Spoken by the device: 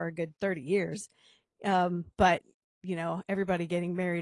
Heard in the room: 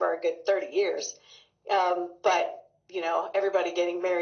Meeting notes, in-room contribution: none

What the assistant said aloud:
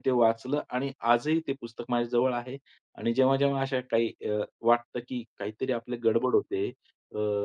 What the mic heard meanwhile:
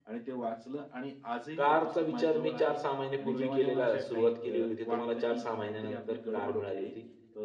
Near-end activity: present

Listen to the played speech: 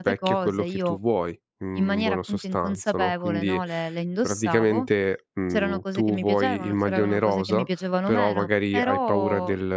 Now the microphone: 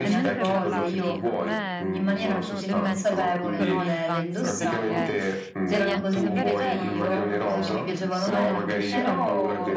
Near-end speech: present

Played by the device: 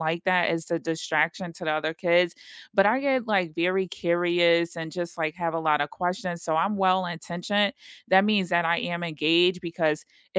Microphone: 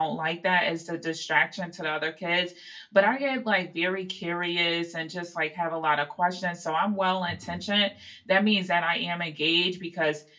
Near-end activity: present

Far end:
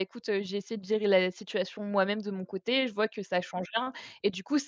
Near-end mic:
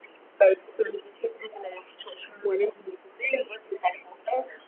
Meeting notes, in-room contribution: none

